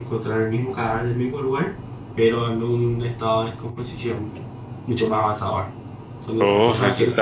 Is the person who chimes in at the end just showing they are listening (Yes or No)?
No